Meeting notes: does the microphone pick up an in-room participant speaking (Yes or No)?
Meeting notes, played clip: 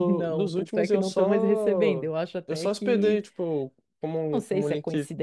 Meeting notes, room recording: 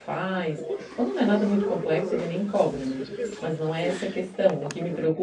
Yes